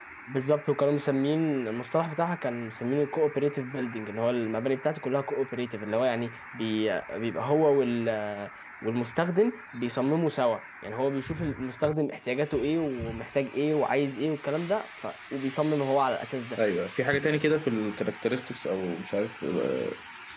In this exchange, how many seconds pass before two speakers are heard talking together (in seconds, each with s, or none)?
none